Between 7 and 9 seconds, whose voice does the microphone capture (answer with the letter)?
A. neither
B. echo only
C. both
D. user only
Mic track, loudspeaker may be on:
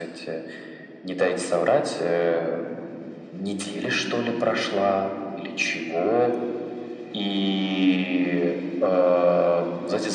B